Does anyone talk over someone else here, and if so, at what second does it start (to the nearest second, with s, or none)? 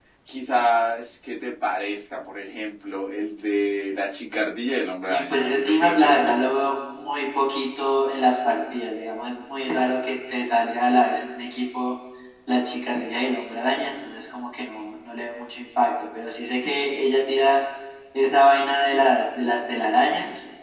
5 s